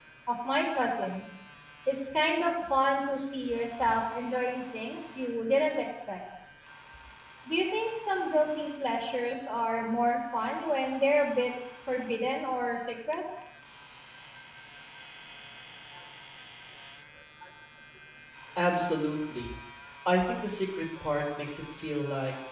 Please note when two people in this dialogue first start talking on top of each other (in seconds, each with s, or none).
none